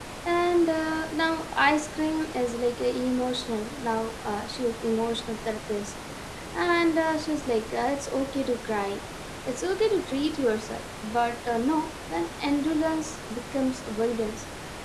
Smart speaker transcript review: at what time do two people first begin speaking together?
none

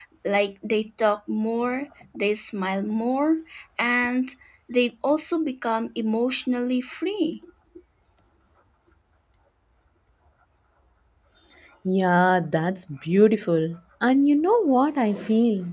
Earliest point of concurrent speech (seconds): none

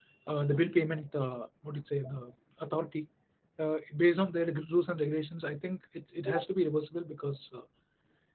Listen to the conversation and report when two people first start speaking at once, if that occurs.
none

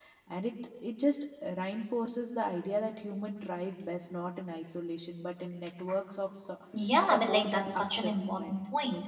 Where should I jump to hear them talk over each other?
7 s

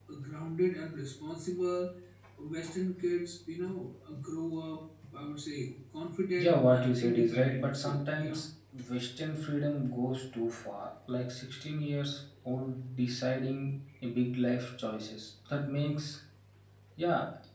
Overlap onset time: 6 s

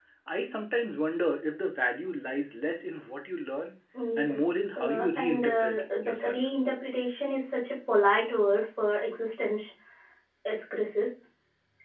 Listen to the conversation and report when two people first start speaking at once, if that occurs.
4 s

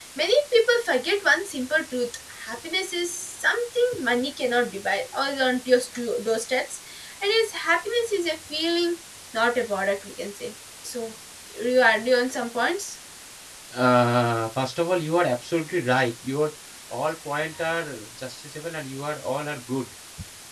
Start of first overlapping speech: none

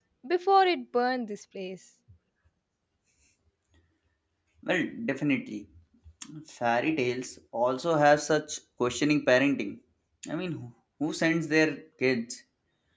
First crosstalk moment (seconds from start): none

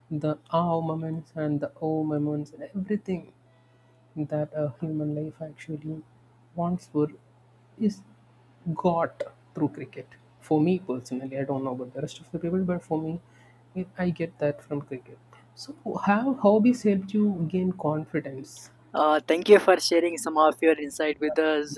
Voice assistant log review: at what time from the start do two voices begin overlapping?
none

